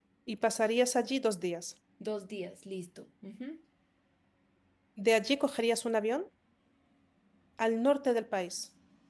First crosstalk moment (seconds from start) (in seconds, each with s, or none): none